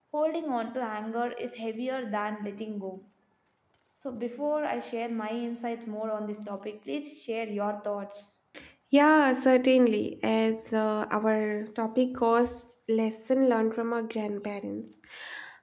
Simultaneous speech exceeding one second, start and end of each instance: none

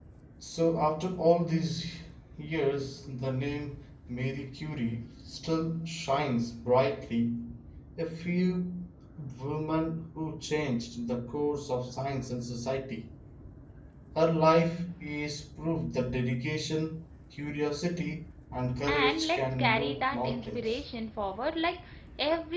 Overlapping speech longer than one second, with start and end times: 18.8-20.8

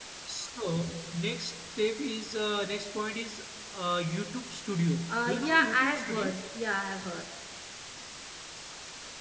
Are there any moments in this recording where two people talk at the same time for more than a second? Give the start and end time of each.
5.1-6.3

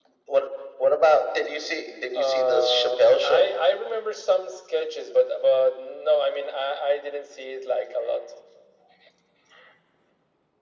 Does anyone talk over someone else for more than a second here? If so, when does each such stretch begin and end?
2.1-3.5

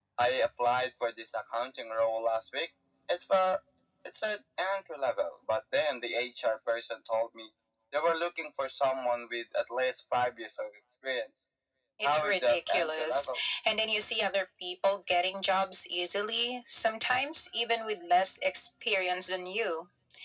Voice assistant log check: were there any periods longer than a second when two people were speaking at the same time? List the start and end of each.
12.0-13.3

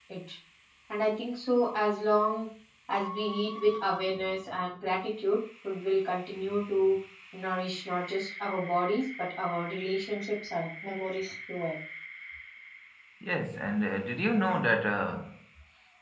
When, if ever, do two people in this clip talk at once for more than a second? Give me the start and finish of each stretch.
none

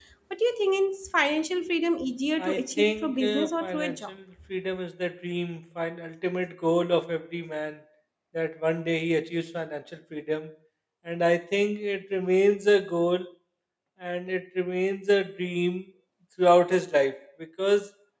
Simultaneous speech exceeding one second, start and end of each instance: 2.4-4.1

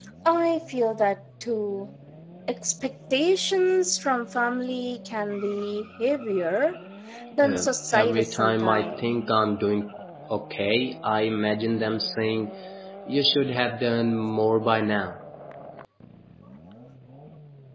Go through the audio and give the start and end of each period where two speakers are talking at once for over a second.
7.4-9.1

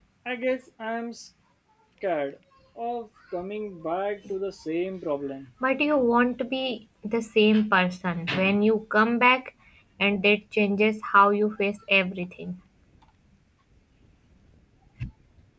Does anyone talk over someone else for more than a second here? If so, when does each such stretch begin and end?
none

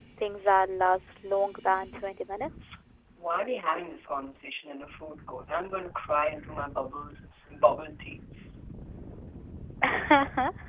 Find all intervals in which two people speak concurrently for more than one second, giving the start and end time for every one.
none

